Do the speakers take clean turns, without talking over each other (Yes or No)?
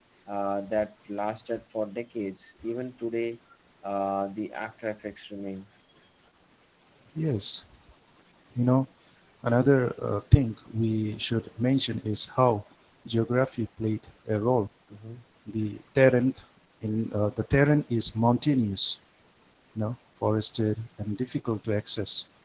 Yes